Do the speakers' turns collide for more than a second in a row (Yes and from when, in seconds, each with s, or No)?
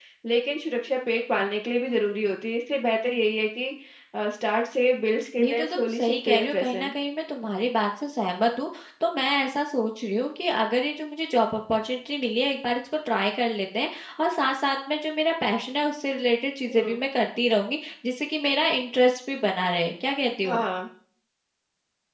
Yes, from 5.4 s